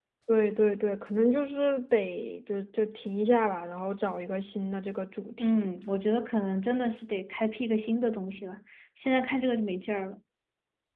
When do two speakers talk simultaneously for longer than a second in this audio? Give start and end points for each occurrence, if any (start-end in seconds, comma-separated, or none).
none